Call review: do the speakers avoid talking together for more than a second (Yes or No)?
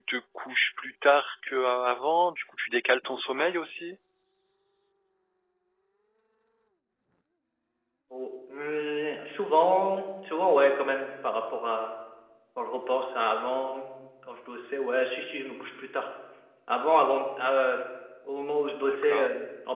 Yes